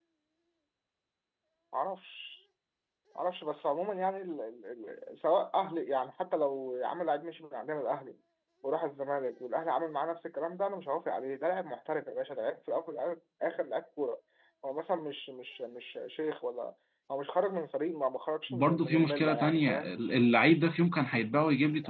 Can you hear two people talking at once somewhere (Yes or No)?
Yes